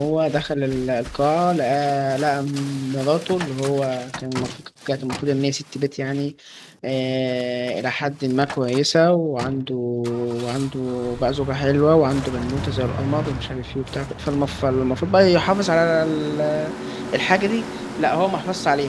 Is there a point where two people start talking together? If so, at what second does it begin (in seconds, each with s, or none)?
none